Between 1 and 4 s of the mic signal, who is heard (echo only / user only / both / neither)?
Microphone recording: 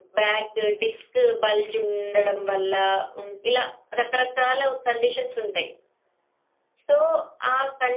echo only